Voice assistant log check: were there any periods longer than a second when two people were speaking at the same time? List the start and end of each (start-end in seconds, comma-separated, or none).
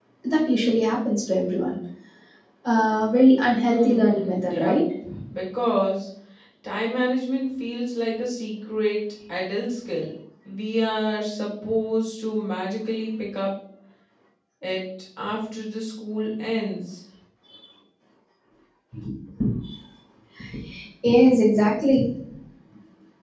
3.5-4.8